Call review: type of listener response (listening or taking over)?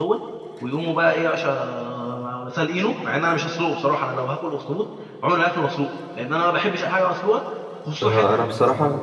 taking over